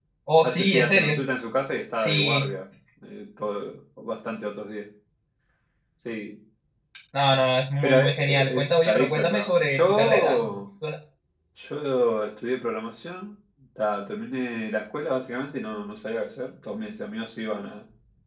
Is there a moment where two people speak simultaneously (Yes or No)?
Yes